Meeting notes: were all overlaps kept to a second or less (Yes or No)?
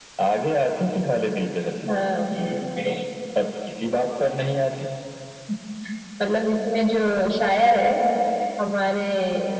Yes